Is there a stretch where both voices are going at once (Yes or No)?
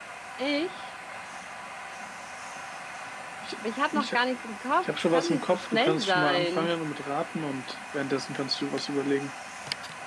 Yes